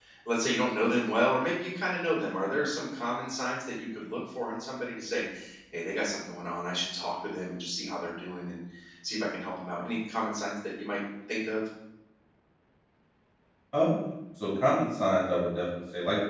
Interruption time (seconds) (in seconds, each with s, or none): none